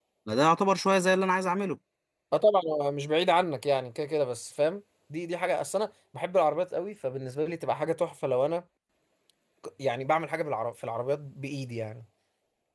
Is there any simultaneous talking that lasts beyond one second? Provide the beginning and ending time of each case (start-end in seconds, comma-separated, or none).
none